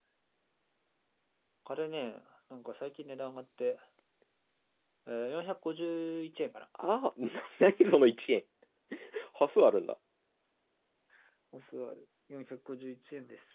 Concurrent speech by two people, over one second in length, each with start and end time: none

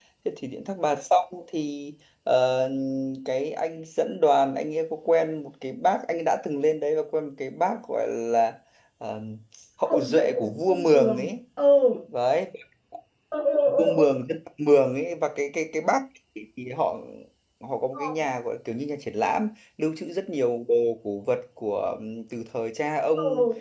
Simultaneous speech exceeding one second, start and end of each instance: 9.9-11.3

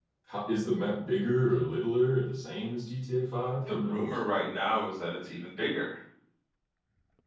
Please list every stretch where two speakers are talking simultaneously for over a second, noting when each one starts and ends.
none

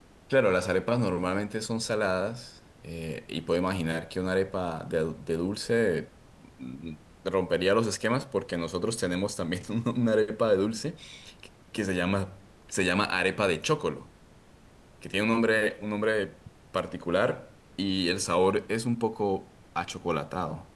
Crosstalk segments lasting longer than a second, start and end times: none

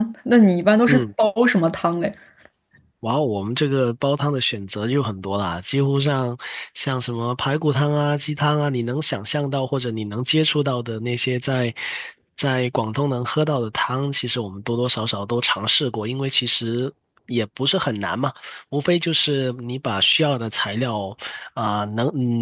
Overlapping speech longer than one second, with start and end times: none

